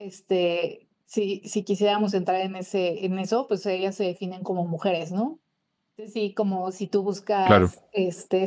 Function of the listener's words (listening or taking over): listening